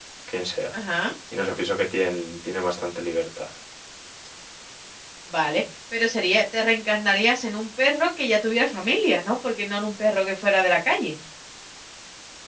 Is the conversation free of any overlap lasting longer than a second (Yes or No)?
Yes